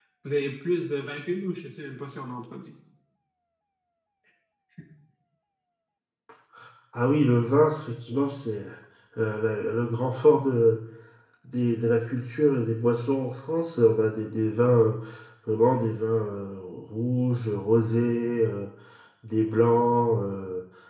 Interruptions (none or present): none